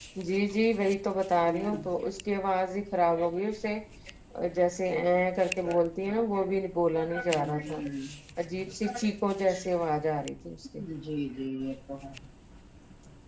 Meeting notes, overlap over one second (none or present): none